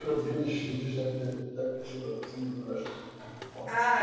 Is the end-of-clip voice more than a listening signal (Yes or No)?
Yes